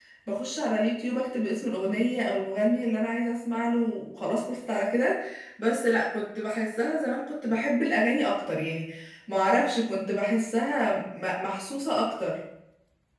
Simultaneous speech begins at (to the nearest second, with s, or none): none